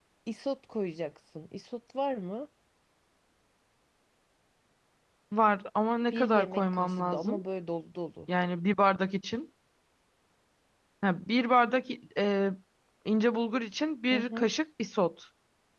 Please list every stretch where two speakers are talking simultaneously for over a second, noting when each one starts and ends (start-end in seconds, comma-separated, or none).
6.1-7.4